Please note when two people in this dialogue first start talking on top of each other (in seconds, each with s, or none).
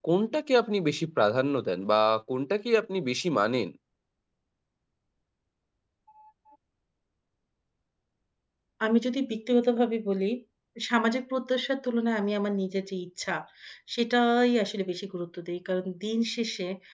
none